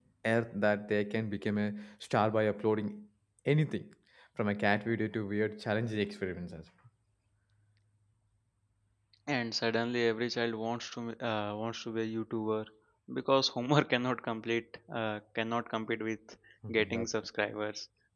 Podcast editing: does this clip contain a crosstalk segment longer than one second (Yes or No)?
No